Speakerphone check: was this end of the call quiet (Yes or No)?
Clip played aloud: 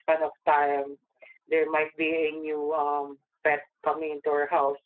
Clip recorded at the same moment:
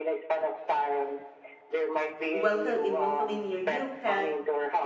No